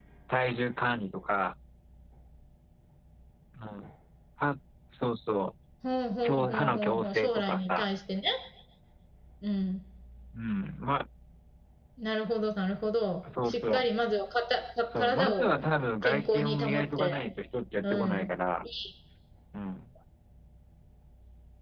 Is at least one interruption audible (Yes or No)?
Yes